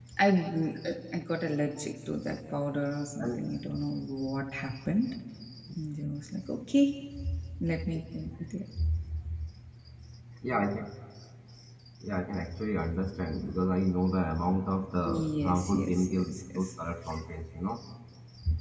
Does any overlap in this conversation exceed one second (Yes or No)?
Yes